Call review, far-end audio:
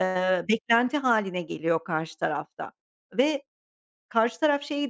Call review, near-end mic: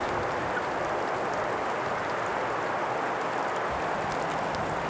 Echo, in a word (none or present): none